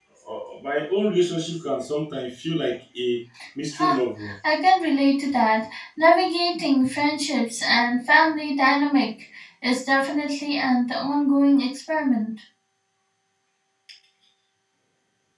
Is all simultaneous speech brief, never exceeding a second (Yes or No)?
Yes